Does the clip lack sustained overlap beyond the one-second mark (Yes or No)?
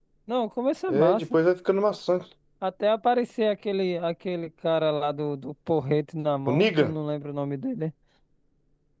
Yes